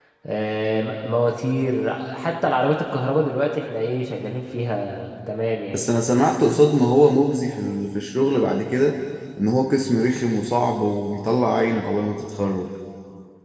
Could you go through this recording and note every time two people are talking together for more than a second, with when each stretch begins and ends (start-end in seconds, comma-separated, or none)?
none